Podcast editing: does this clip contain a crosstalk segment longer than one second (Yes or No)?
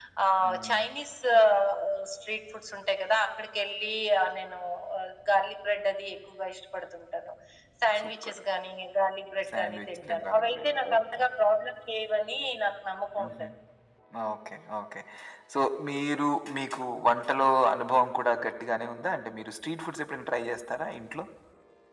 Yes